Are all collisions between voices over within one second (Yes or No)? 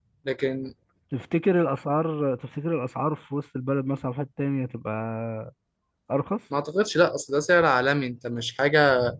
Yes